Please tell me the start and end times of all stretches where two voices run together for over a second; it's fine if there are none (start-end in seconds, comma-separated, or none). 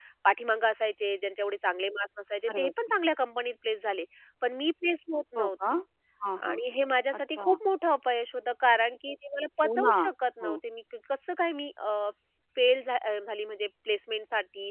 none